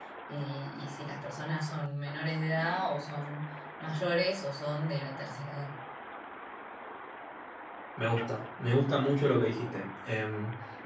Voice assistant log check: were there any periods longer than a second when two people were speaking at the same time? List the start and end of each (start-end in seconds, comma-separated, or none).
none